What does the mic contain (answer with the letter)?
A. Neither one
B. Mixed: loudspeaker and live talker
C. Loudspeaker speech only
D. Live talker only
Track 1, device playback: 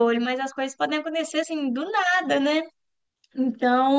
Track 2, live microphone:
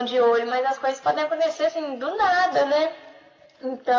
C